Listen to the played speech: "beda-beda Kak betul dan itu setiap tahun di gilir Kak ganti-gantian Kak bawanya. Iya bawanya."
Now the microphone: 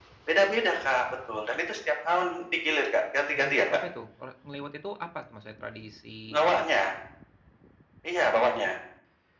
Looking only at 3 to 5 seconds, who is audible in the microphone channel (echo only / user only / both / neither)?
both